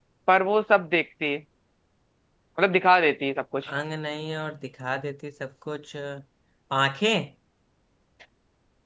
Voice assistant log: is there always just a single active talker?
Yes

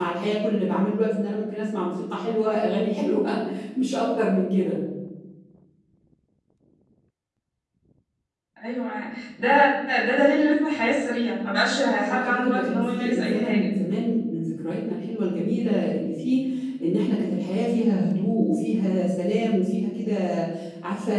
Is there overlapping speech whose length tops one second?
Yes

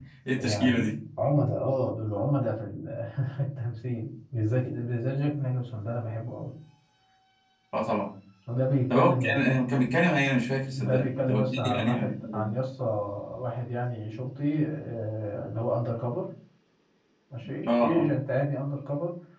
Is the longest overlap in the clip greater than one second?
Yes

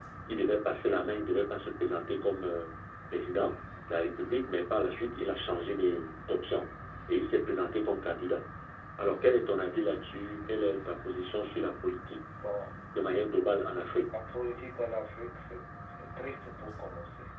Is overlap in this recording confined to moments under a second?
Yes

